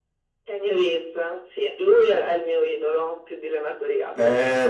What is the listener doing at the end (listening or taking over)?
taking over